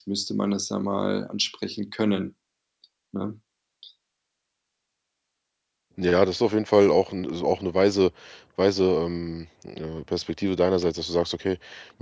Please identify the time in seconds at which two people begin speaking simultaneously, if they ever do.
none

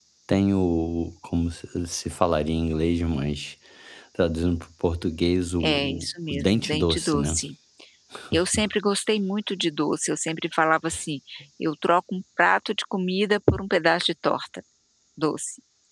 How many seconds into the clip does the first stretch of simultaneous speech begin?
5.6 s

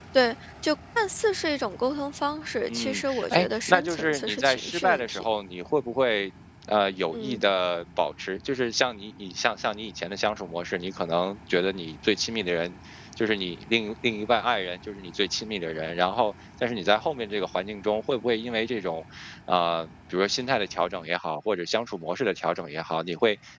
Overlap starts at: 2.7 s

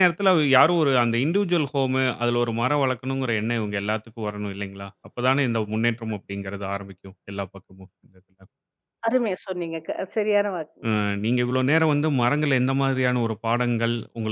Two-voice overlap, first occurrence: none

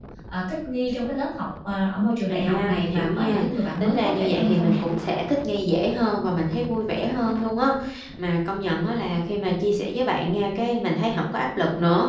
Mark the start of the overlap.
2.3 s

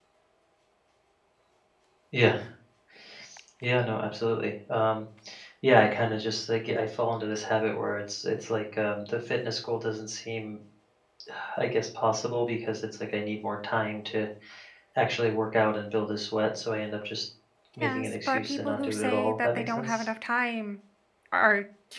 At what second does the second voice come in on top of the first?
17.8 s

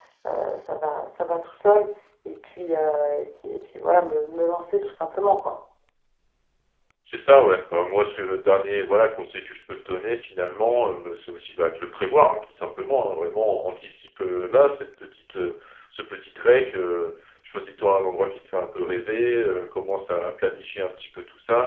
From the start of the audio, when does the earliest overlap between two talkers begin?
none

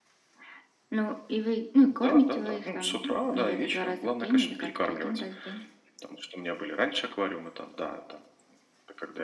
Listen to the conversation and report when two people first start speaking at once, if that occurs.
1.9 s

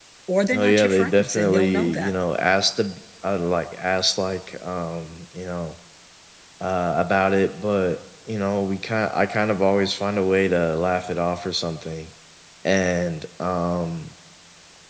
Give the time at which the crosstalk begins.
0.5 s

